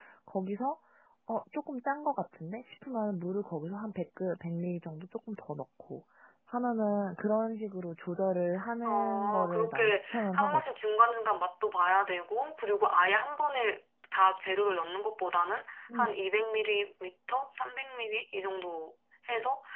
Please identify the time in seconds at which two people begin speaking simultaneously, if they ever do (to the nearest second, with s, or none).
9 s